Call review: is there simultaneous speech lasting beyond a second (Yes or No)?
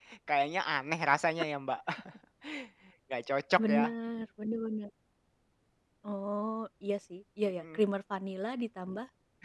No